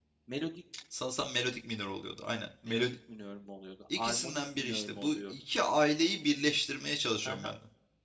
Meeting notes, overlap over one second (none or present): present